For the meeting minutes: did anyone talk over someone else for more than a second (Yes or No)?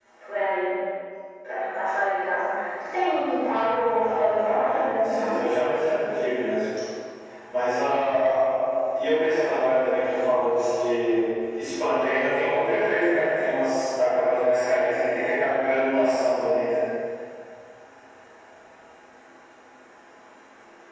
Yes